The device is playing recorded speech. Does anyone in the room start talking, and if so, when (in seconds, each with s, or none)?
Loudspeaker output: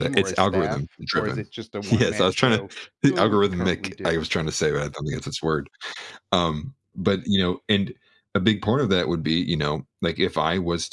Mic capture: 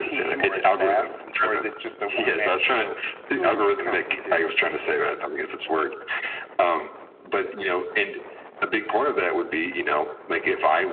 none